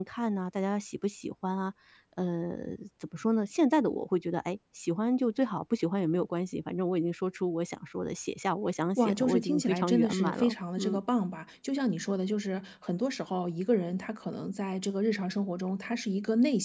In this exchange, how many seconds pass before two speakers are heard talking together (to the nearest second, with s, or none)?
9 s